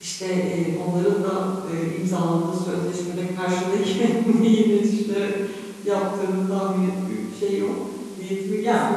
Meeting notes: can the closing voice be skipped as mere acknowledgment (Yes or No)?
Yes